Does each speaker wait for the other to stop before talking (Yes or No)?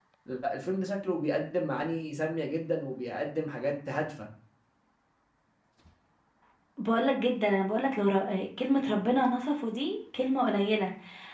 Yes